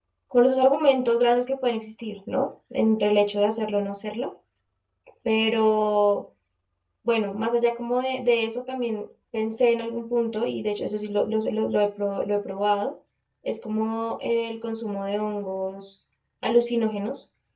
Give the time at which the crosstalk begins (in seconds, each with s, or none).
none